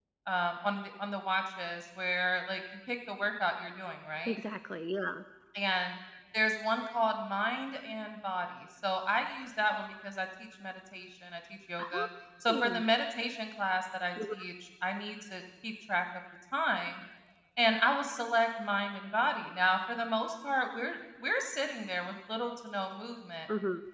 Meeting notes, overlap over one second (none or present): none